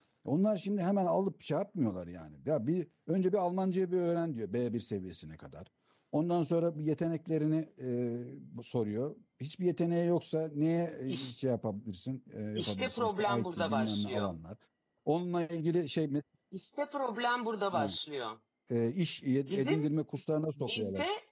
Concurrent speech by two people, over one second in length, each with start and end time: 12.6-14.3

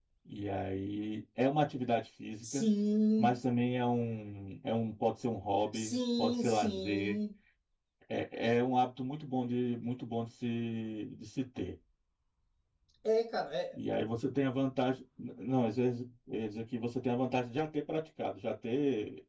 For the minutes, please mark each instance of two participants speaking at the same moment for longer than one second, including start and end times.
5.7-7.2

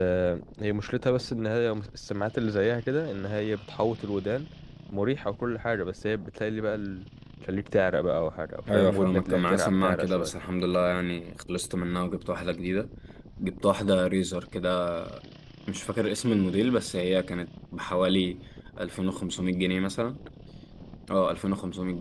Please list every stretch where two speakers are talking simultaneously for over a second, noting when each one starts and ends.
8.7-10.3

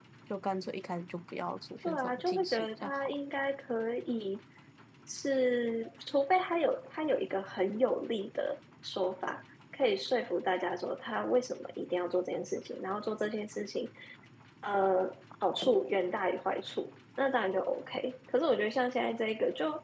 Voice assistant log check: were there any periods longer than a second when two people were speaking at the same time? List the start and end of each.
1.8-3.1

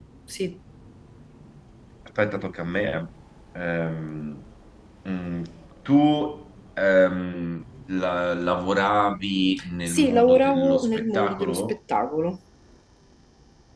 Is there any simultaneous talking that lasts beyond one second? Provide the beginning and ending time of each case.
9.9-11.8

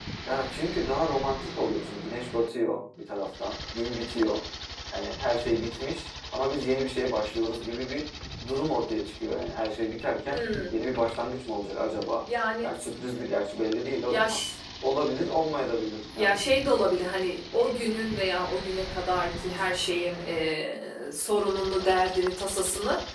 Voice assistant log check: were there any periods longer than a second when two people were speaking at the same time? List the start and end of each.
none

